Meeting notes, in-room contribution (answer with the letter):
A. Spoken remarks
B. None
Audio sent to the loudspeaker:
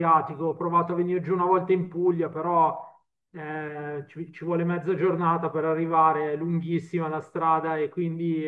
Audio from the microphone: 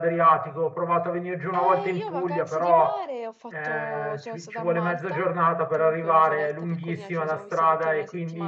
A